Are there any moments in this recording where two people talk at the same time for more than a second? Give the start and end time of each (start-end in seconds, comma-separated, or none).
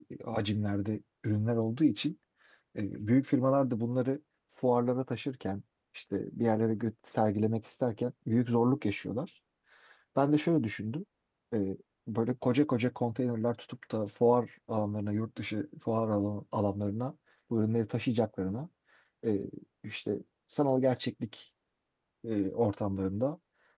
none